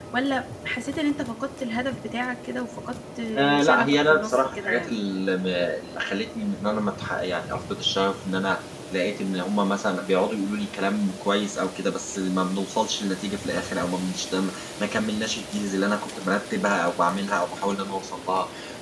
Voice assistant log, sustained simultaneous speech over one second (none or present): present